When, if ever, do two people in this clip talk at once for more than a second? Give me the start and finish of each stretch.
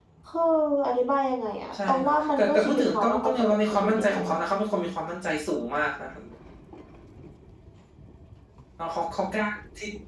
1.9-4.4

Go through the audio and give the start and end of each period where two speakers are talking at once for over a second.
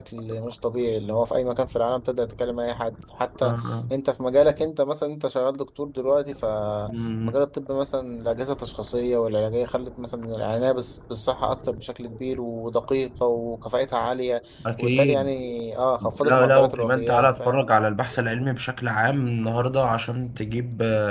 16.2-17.6

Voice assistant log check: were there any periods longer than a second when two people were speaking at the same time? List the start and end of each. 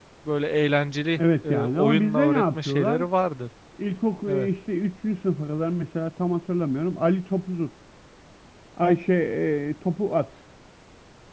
1.2-3.0

